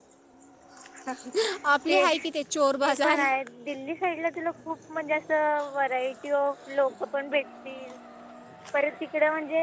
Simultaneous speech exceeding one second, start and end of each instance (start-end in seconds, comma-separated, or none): none